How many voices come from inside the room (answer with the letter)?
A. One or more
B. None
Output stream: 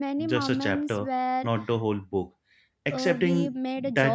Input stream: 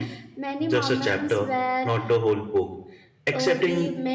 B